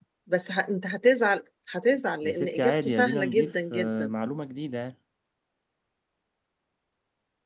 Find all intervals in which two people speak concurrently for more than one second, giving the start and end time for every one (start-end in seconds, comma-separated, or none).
2.2-4.1